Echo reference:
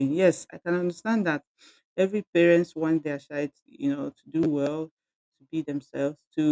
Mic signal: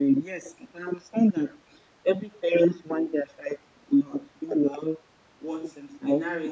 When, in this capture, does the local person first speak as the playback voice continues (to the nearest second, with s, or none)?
5 s